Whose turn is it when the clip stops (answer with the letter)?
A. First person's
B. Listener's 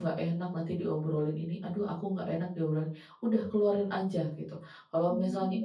A